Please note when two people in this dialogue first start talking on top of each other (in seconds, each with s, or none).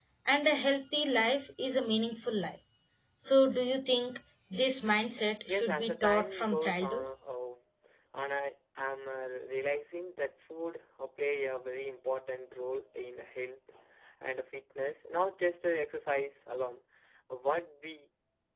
5.5 s